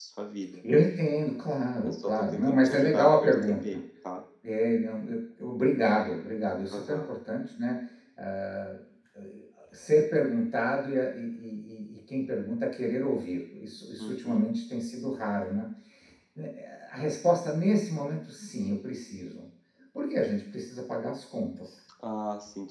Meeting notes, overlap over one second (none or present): present